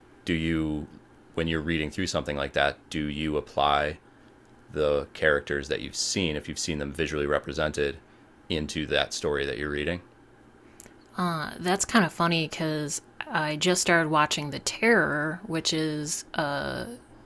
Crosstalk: none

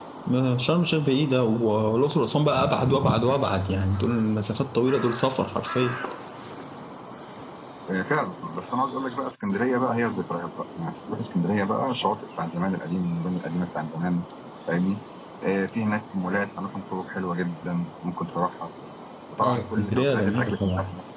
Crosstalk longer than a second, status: present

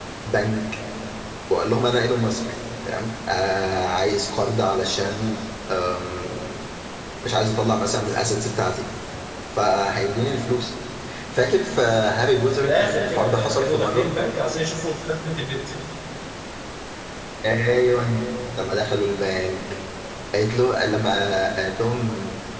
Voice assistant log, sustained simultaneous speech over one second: present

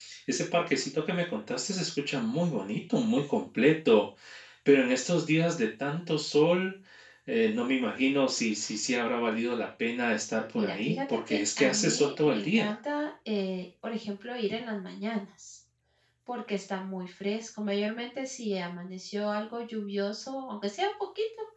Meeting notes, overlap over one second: present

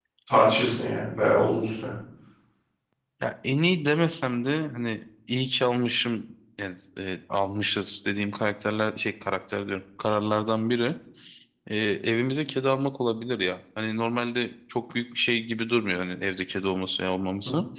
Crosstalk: none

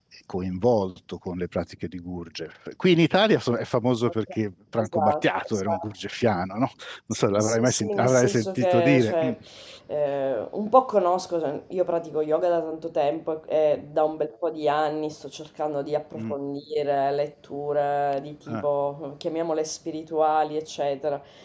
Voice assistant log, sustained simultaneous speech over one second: present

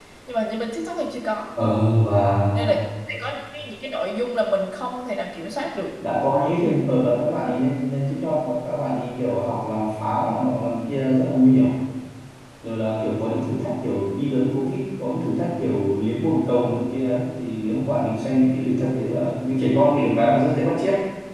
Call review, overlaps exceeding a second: none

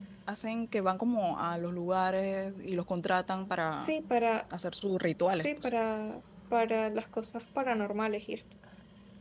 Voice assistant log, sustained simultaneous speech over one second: none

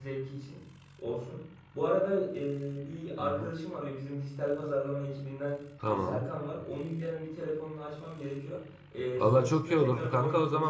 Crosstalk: present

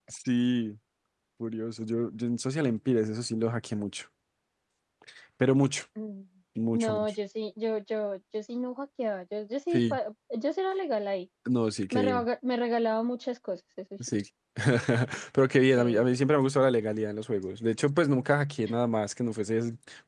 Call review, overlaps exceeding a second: none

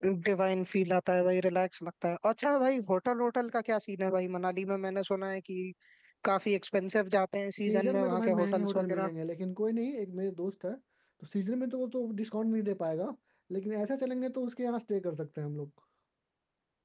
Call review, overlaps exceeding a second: present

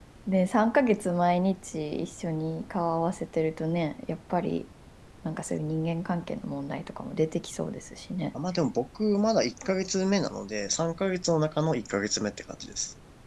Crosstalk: none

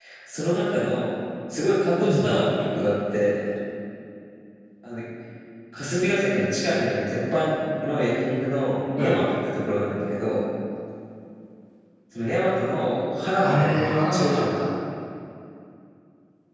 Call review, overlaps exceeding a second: present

